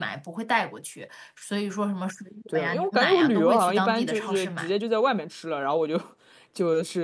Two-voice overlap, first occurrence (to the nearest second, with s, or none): 2 s